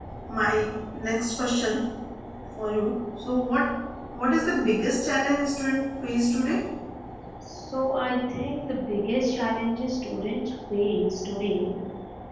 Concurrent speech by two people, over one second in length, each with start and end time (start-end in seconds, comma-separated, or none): none